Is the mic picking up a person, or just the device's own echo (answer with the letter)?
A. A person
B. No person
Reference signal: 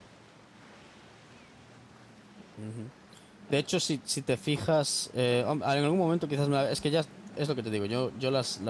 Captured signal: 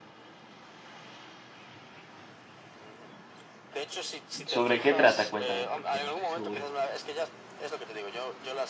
A